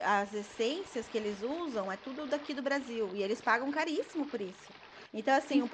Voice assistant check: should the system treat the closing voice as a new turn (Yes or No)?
No